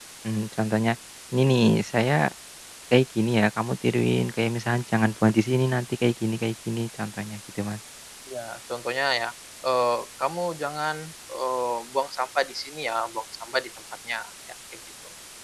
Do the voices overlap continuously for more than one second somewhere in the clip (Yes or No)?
No